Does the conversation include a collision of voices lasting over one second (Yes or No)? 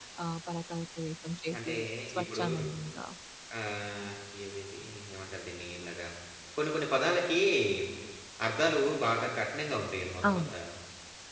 No